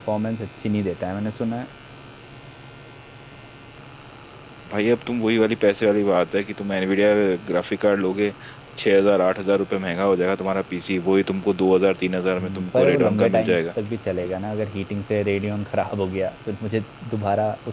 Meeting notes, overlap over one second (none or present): present